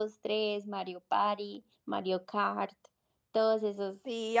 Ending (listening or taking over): taking over